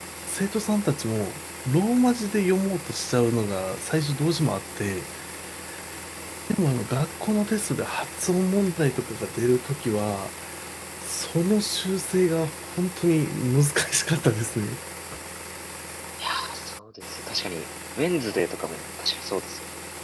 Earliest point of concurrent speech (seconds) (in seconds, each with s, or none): none